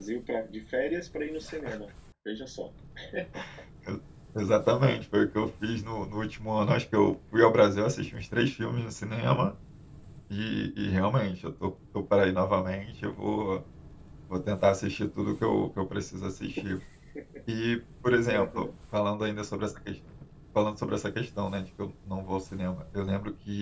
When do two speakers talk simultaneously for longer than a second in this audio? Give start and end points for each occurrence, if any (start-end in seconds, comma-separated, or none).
none